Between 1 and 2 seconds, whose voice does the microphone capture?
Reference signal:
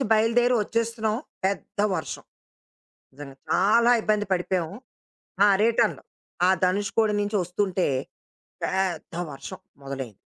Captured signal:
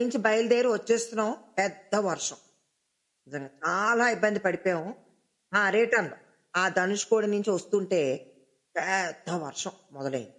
echo only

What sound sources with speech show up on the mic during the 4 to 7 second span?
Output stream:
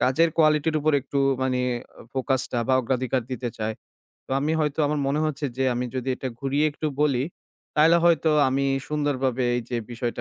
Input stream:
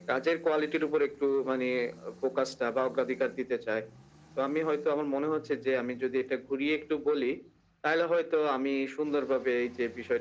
echo only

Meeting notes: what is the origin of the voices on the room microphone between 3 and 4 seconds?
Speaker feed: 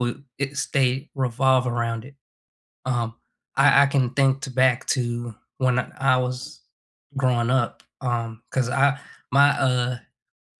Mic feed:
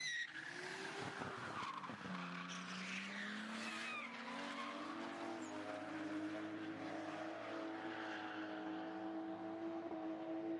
neither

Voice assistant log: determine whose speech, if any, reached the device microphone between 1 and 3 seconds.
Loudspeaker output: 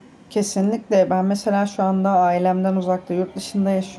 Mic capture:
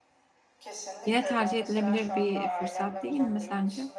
both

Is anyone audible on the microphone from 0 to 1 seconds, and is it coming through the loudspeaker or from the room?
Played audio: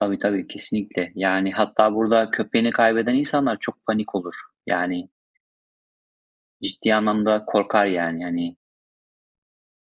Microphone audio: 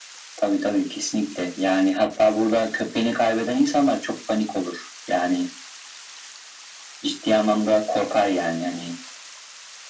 echo only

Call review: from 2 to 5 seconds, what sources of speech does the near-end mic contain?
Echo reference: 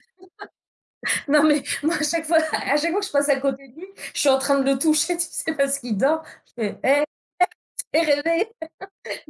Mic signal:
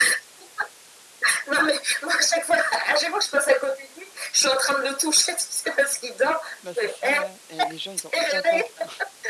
echo only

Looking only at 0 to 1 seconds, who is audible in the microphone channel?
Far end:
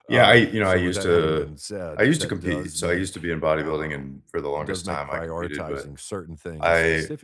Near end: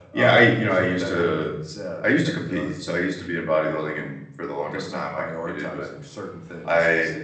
echo only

